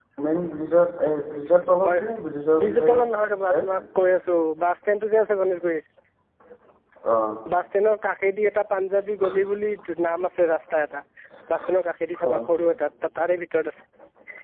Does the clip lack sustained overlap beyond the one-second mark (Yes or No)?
Yes